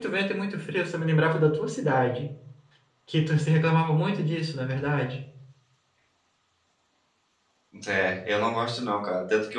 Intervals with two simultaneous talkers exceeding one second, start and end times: none

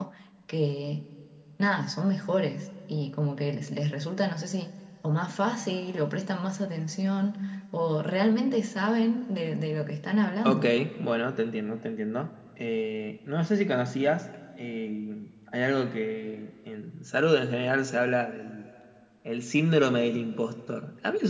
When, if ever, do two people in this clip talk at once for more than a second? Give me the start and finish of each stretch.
none

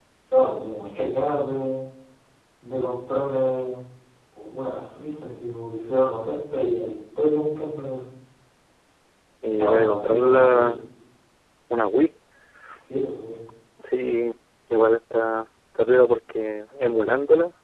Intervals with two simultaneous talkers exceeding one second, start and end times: 9.5-10.7

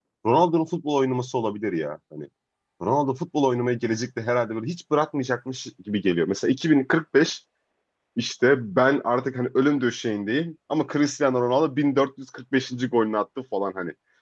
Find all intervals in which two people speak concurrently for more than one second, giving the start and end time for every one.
none

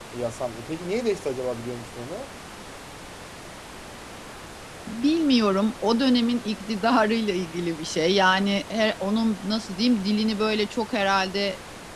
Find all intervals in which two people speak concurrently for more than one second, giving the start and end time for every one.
none

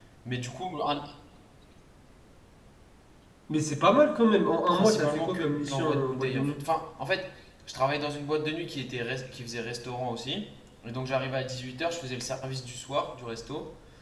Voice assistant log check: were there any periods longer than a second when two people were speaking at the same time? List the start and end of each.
4.7-6.6

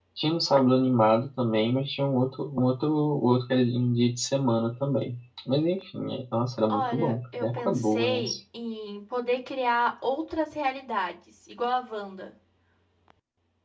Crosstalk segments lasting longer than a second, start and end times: 6.7-8.3

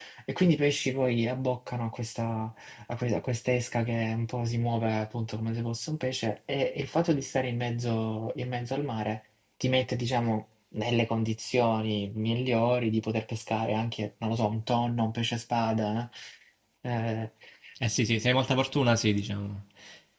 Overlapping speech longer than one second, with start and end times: none

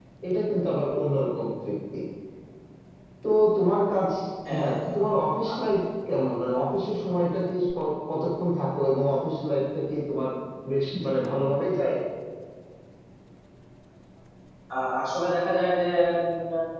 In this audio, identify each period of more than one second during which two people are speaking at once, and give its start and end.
none

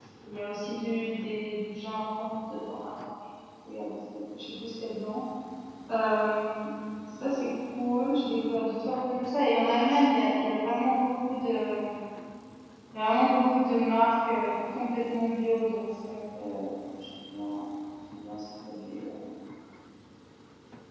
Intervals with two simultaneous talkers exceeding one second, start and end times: none

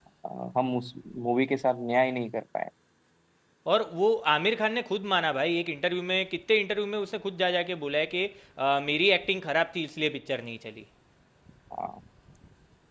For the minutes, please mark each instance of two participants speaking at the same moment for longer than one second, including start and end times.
none

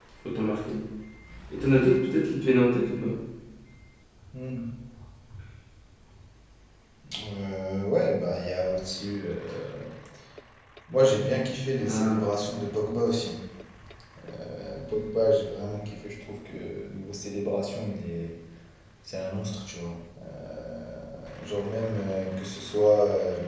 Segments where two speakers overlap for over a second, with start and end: none

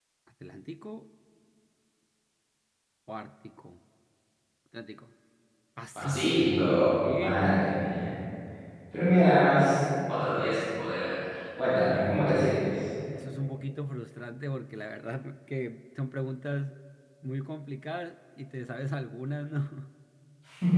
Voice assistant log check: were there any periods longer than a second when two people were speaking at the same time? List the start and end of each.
6.0-7.7

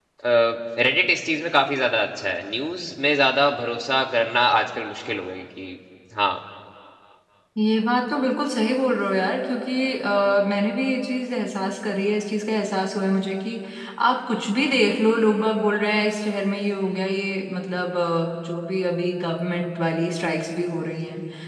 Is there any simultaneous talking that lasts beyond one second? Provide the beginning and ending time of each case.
none

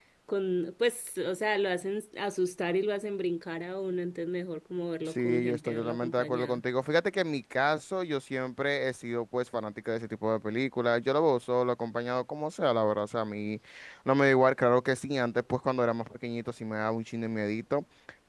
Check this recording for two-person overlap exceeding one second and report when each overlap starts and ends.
5.1-6.6

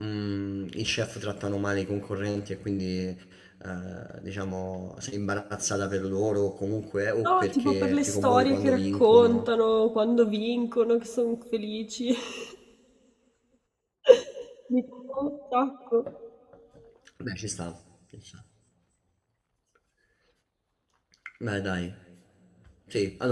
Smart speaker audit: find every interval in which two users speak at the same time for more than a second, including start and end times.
7.2-9.5

